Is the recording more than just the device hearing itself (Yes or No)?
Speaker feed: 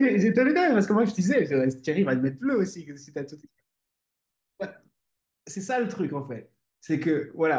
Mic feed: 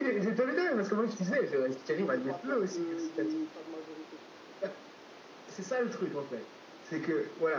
Yes